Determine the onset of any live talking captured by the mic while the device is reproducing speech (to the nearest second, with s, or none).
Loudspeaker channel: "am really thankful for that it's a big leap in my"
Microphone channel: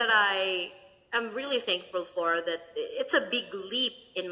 none